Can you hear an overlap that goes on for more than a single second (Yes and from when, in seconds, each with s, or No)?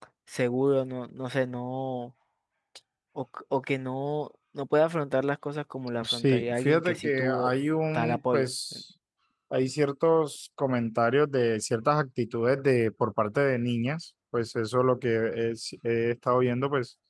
Yes, from 6.0 s